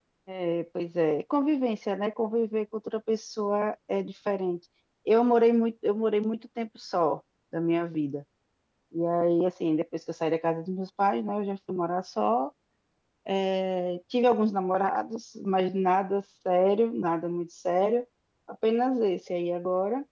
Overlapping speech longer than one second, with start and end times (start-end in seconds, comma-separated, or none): none